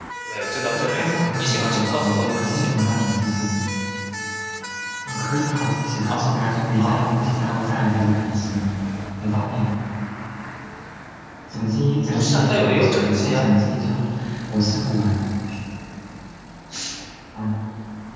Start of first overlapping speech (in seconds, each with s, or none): 0.7 s